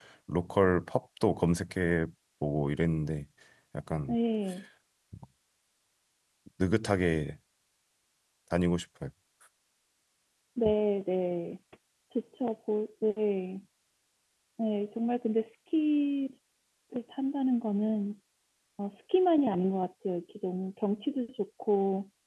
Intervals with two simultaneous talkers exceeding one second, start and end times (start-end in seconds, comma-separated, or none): none